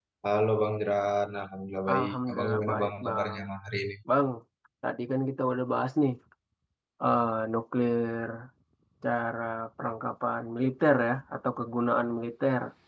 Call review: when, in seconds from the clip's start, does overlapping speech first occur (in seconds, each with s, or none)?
1.9 s